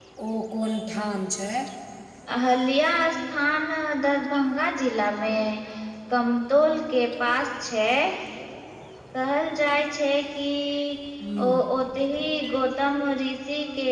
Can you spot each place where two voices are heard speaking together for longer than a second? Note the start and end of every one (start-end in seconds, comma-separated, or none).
none